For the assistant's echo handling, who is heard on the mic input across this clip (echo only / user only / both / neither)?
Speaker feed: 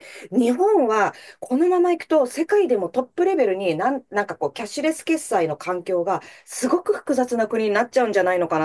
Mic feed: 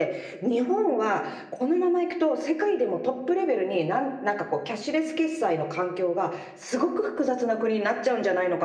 echo only